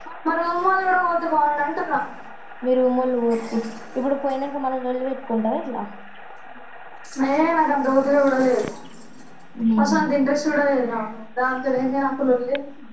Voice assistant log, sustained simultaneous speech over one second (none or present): none